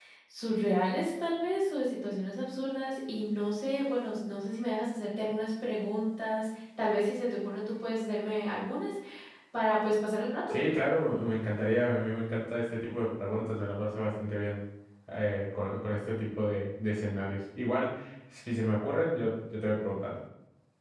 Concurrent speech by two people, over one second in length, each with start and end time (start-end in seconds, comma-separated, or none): none